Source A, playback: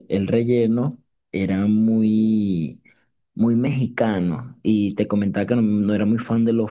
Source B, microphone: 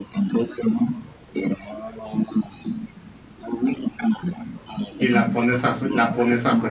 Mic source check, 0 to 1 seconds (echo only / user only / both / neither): echo only